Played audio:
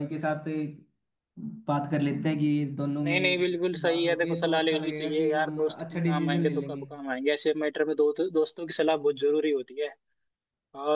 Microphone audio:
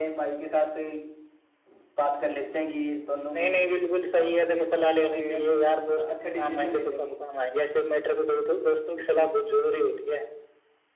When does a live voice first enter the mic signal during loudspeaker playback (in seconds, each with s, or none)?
none